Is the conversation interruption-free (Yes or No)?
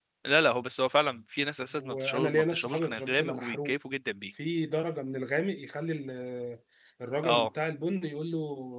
No